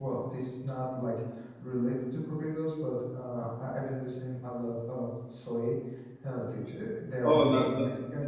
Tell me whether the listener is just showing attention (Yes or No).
No